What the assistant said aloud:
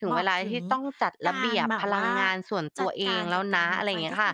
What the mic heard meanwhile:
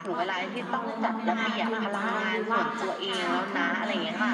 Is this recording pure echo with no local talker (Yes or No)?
No